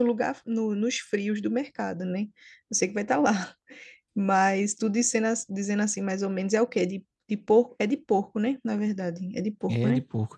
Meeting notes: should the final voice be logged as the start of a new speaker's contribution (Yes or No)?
Yes